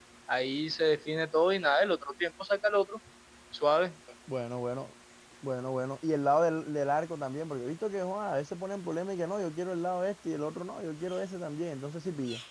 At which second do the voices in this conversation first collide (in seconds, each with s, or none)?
none